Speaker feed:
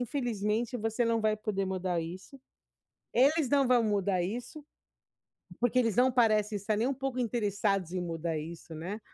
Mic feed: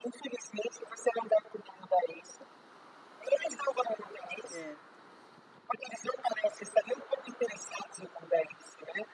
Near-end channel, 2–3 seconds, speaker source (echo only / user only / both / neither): echo only